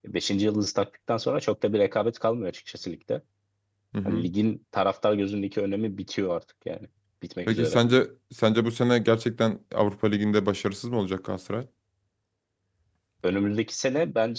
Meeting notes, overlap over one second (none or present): none